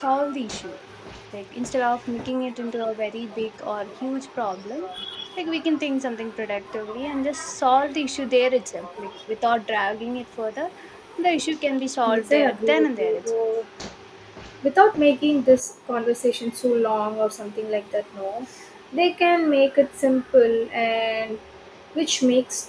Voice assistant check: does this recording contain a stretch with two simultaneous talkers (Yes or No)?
Yes